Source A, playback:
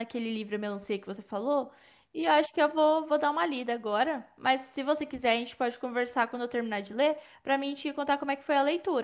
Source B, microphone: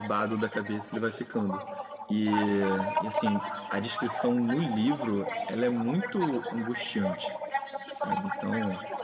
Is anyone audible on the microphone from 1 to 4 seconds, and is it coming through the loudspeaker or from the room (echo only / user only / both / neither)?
both